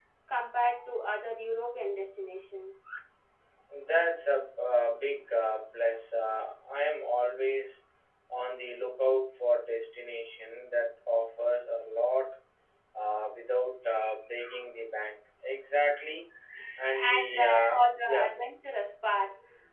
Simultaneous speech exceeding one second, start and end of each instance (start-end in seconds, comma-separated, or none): 17.0-18.3